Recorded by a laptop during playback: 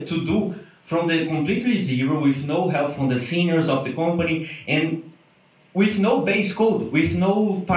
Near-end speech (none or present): none